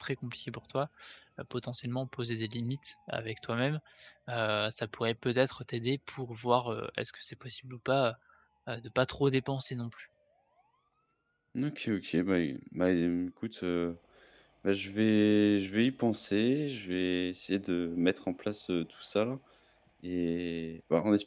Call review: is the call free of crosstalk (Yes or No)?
Yes